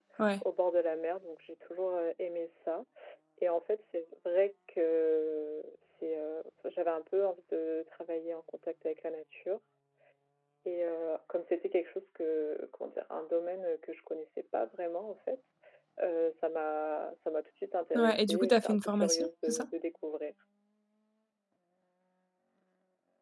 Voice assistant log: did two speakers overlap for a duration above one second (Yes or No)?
Yes